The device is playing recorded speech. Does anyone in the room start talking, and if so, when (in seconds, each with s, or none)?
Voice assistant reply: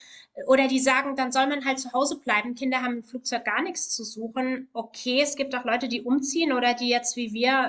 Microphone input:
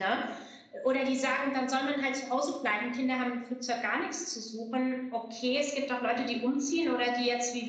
none